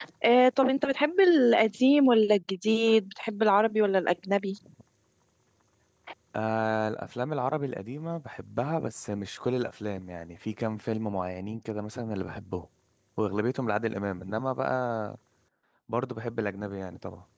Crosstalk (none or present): none